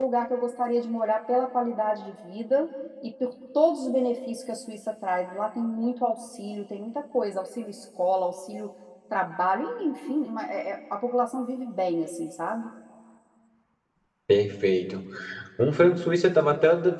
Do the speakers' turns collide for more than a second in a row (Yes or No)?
No